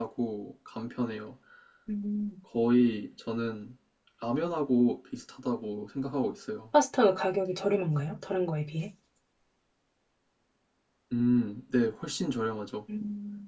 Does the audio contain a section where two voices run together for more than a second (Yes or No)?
No